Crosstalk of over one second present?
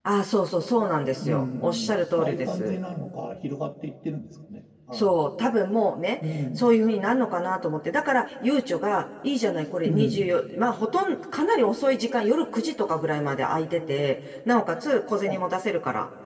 Yes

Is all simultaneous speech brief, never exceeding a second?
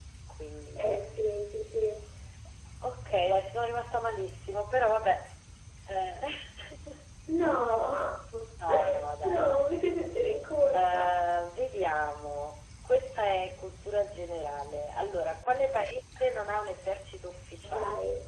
Yes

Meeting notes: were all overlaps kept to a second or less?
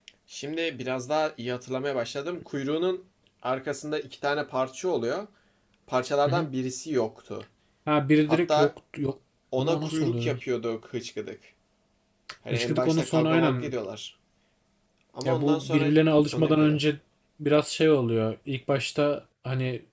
No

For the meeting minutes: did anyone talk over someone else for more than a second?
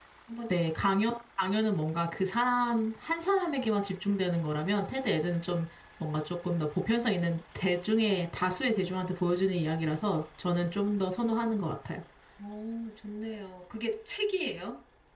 No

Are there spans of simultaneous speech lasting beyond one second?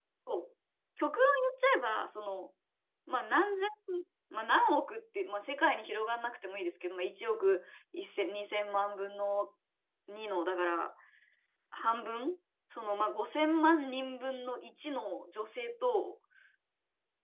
No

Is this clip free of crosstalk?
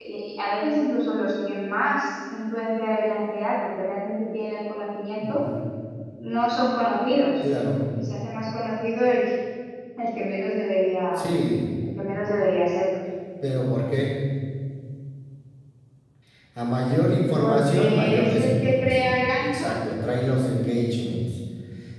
No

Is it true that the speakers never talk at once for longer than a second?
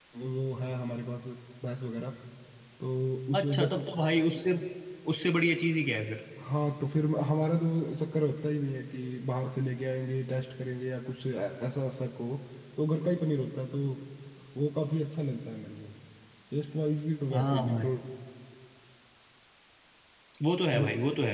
Yes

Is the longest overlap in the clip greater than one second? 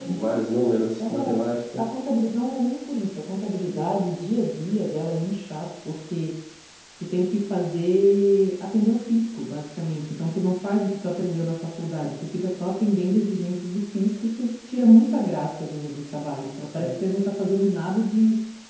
No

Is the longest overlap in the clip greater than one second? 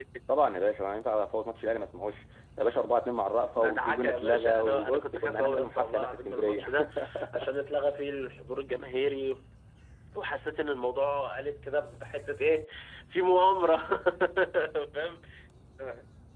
Yes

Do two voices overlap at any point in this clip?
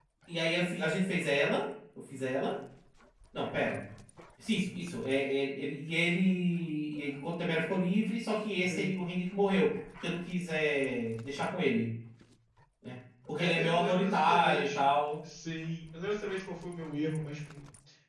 Yes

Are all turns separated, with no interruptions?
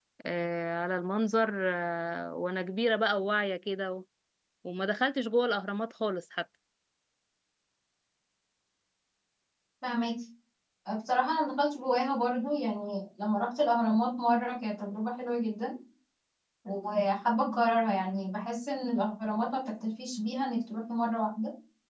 Yes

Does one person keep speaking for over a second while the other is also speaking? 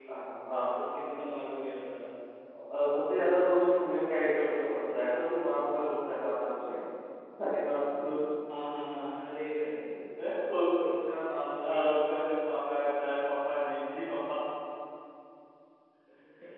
No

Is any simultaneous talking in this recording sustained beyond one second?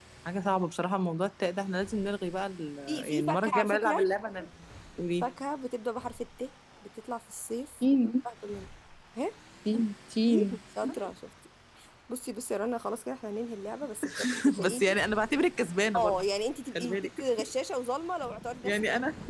Yes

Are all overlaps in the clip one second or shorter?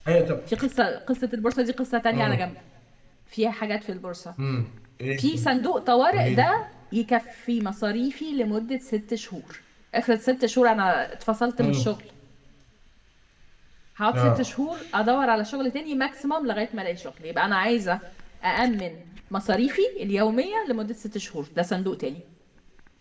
Yes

